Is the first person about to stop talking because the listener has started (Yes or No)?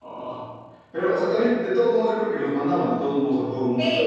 Yes